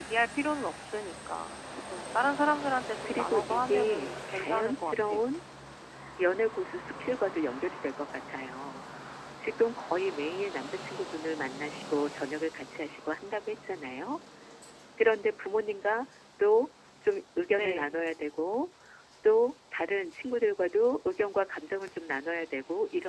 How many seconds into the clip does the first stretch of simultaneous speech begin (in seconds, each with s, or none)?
3.0 s